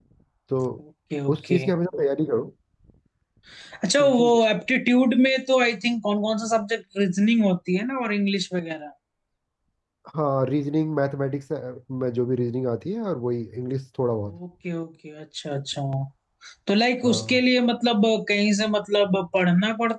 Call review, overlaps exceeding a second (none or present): none